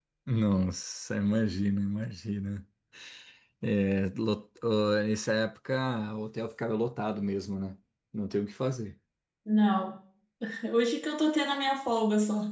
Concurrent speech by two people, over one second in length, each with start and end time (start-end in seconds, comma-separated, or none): none